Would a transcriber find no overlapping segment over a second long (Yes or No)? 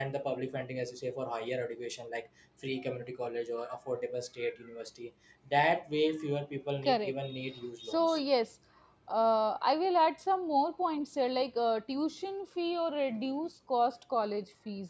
Yes